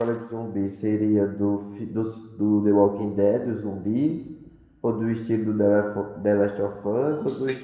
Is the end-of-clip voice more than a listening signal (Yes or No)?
No